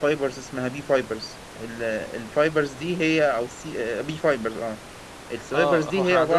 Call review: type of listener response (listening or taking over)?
taking over